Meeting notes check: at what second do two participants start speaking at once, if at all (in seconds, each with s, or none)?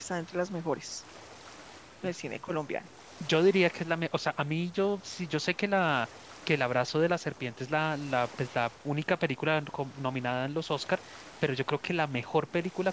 none